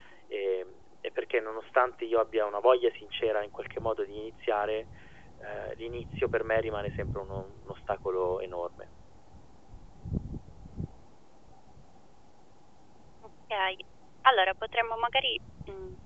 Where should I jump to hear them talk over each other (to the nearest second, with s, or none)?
none